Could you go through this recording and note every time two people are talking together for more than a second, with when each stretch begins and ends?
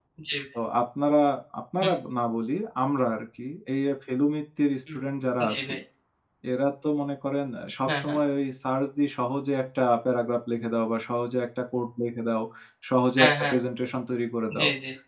none

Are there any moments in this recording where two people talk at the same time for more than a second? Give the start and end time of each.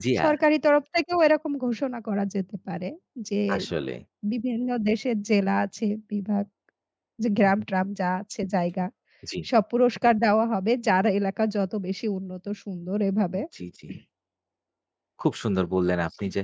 none

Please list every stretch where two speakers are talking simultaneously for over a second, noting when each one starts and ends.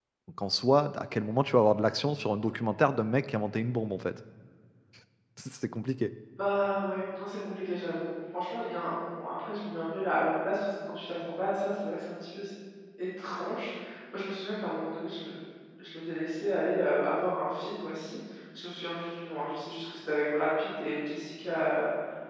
none

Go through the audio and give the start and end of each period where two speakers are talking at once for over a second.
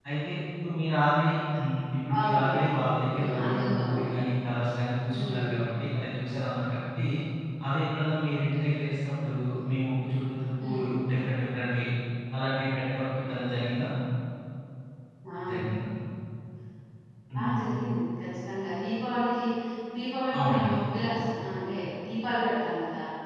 2.2-4.0

